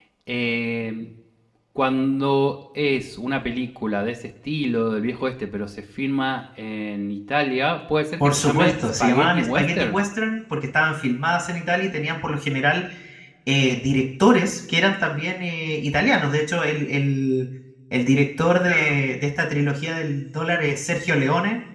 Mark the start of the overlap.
8 s

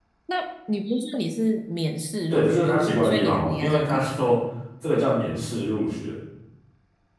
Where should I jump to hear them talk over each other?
2 s

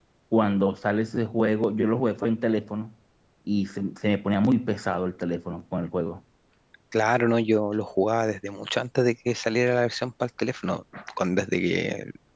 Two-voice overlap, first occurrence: none

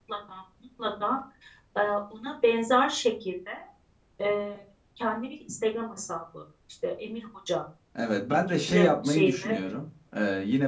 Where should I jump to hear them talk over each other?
8 s

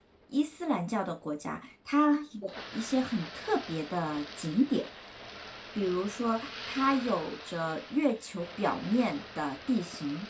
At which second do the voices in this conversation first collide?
none

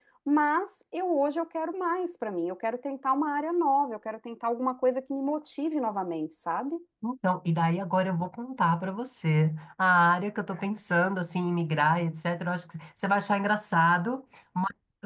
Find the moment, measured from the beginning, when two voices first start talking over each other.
none

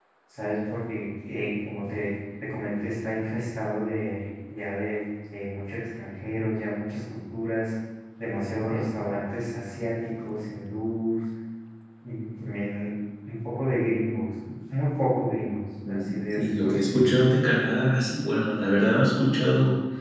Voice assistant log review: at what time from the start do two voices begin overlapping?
16 s

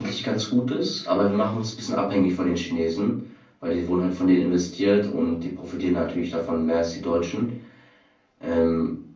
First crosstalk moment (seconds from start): none

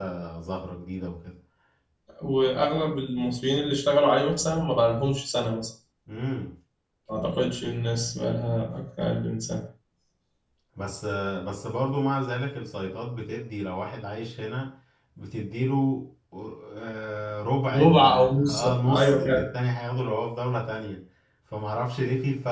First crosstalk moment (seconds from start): 18 s

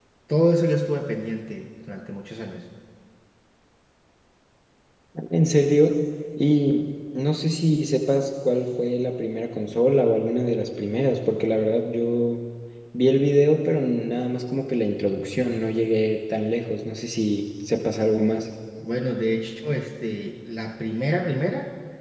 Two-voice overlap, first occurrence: none

